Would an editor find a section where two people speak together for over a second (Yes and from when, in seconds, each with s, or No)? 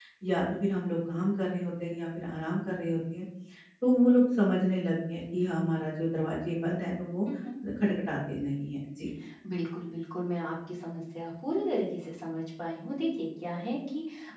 No